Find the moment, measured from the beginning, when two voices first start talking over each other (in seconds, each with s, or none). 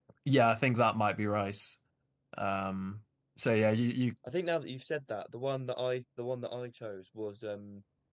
none